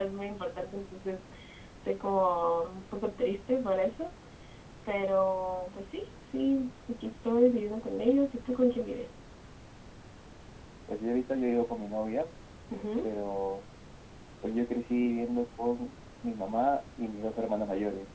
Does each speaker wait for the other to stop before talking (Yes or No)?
Yes